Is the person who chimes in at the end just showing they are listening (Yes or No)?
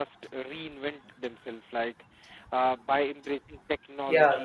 Yes